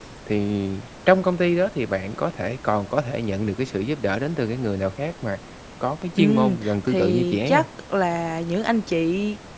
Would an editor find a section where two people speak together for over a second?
Yes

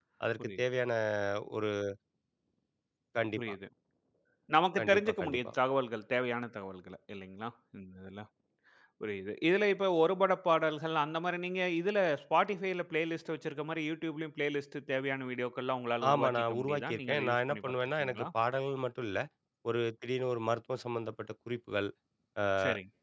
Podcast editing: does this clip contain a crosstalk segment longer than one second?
Yes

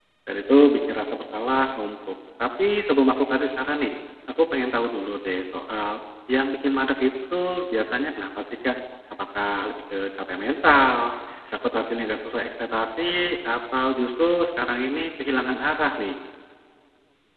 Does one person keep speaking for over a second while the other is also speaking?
No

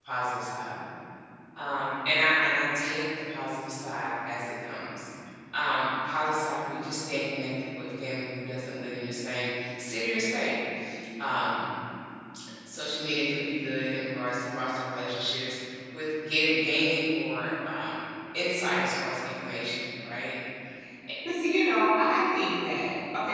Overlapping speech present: No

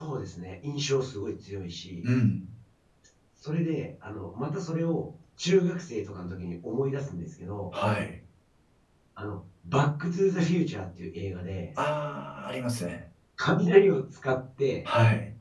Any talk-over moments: No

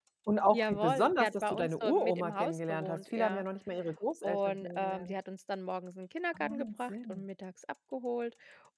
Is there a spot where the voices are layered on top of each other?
Yes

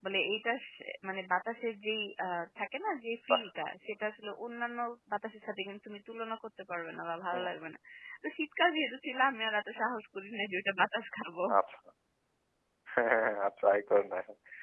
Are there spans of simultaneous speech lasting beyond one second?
No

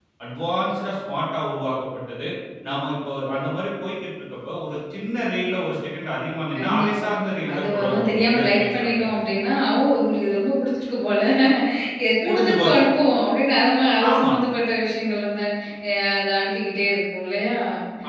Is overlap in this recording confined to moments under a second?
No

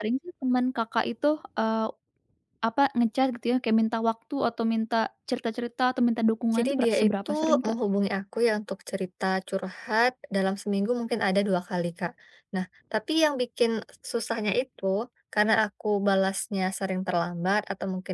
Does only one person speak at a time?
No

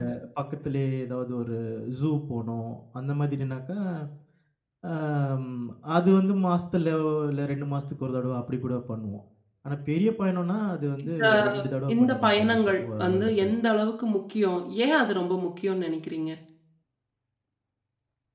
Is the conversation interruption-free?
No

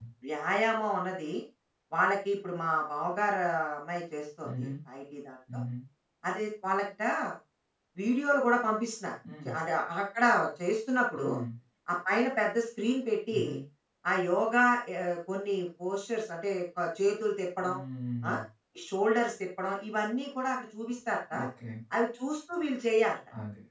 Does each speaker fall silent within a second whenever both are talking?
Yes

